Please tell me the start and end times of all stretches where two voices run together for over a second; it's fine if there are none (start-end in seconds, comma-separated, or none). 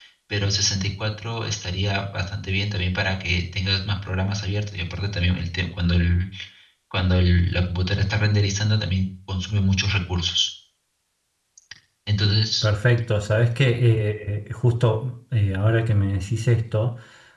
none